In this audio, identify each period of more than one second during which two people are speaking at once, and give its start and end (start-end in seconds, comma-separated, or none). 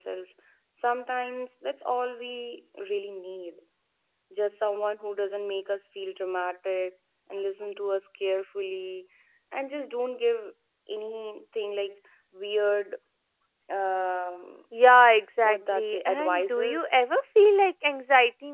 15.4-16.9